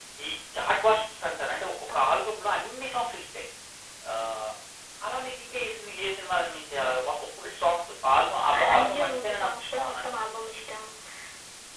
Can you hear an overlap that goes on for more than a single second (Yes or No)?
Yes